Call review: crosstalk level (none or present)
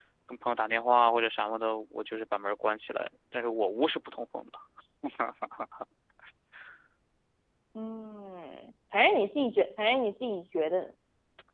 none